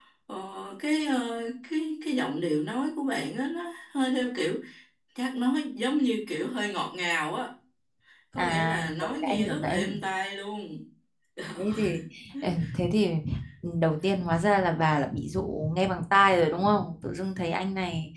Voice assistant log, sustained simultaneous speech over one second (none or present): present